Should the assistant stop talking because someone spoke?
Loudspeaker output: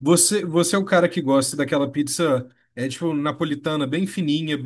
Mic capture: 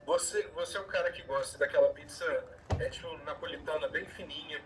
No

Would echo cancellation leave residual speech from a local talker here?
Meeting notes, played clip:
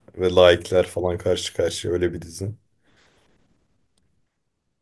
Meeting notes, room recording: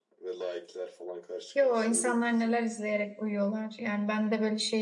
Yes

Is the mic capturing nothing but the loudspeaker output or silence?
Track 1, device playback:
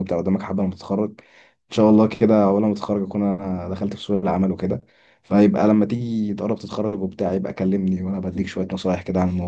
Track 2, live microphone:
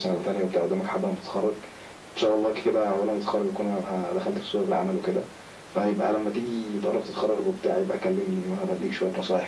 Yes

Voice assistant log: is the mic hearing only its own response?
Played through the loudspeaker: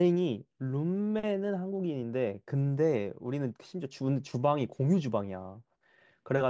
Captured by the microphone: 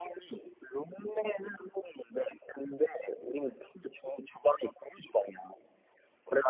Yes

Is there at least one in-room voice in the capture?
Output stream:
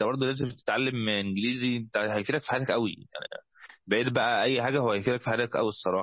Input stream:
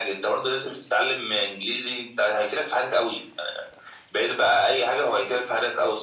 No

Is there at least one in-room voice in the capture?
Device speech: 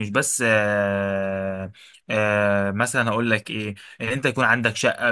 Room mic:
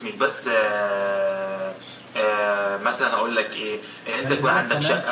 Yes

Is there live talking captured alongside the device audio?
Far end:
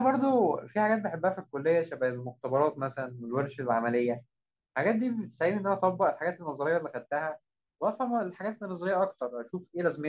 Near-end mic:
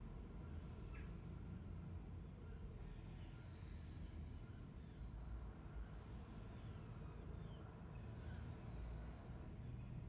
No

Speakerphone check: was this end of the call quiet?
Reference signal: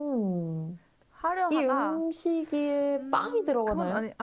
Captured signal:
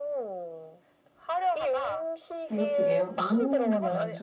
No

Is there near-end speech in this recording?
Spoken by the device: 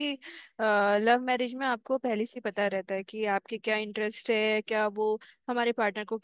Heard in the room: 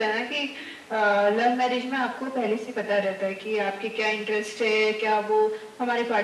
No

